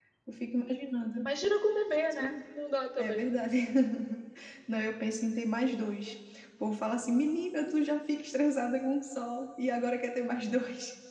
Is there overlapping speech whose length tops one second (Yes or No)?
No